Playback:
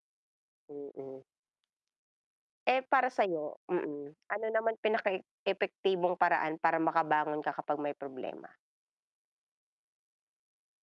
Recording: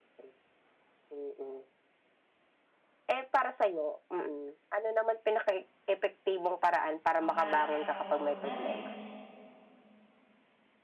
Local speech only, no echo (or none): ang palakasin pong loob natin